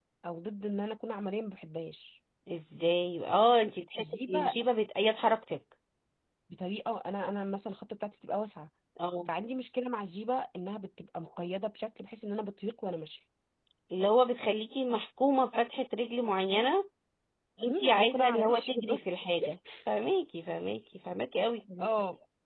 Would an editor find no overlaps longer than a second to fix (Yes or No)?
No